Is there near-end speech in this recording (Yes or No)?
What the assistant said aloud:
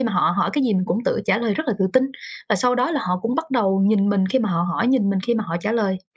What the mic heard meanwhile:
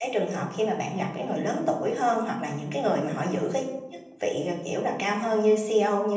Yes